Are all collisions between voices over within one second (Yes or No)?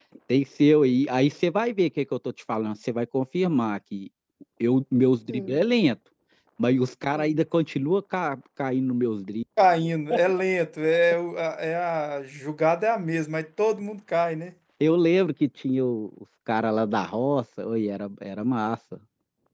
Yes